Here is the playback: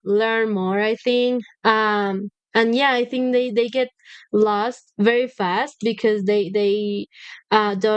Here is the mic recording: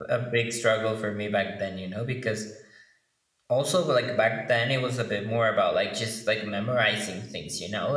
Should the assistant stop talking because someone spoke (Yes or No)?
Yes